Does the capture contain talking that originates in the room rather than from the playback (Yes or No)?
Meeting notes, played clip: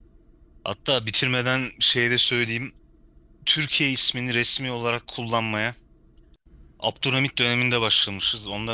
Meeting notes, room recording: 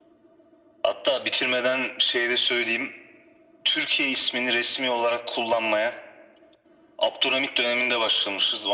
No